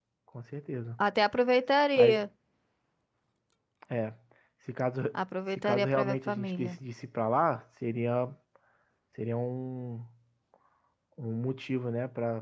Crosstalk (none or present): present